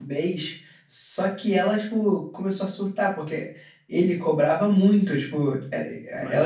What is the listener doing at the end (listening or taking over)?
listening